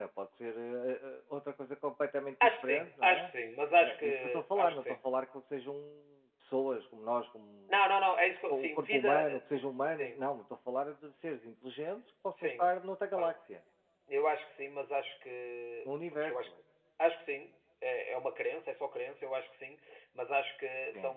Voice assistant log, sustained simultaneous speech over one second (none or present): present